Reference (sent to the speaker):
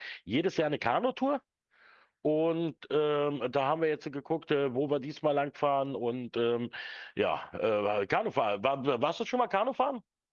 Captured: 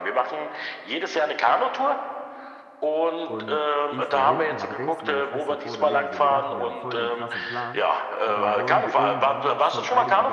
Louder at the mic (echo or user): echo